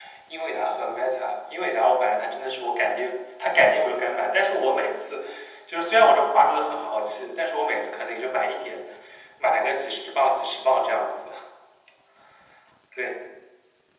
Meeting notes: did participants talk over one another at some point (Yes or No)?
No